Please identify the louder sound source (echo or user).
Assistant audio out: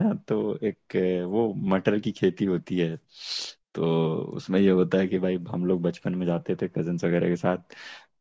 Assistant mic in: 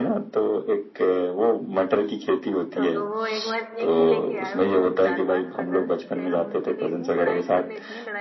echo